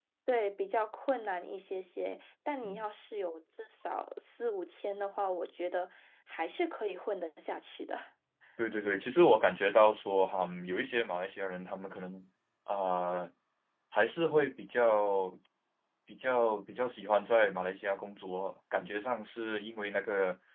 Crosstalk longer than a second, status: none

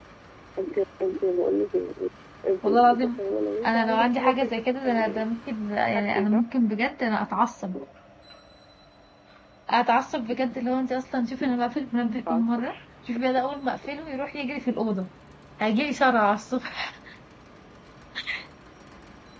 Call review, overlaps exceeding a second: present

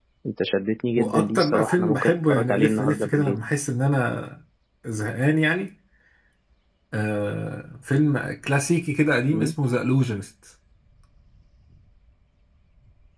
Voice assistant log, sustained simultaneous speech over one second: present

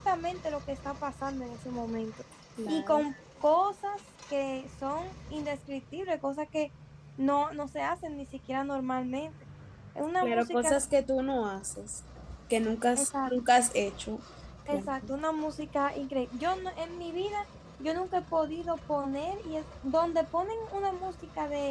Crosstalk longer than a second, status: none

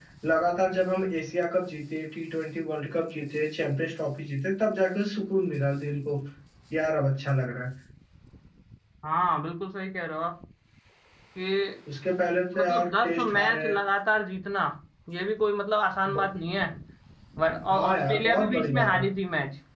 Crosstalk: present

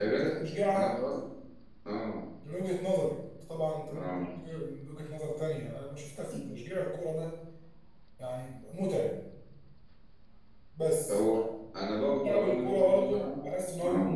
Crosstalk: present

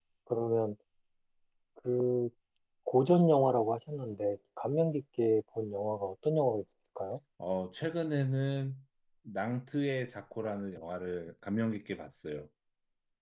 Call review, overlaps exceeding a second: none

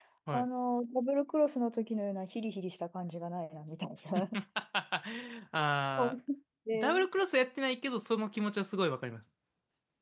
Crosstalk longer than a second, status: none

